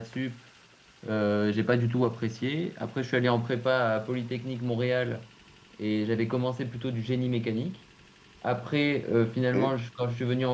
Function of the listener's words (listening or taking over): listening